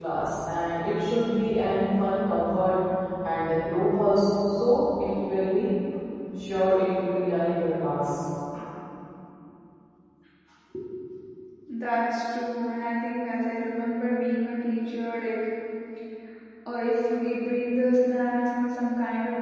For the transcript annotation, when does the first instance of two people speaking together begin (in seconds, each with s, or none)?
none